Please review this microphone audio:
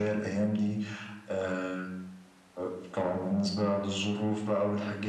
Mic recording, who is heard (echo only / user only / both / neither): echo only